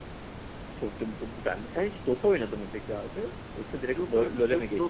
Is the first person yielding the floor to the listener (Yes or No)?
Yes